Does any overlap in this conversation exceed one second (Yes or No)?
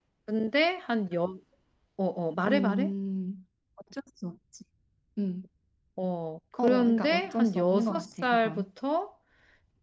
Yes